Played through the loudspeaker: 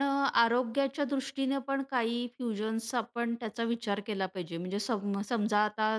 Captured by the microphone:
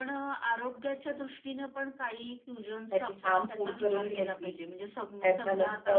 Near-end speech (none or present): present